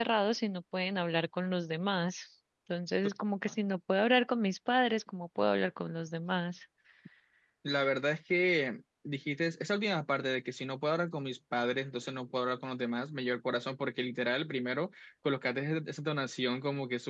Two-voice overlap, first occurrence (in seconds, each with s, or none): none